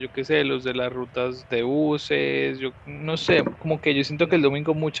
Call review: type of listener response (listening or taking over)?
listening